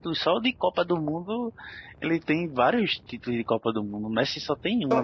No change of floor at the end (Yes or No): No